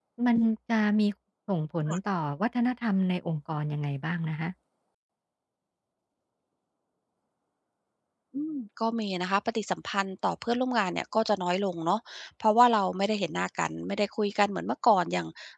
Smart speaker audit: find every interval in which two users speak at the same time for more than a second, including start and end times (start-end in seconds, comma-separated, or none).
none